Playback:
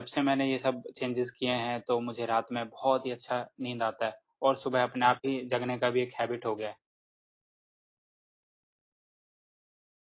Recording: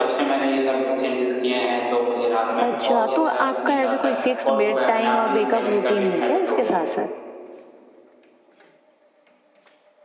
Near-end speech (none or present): present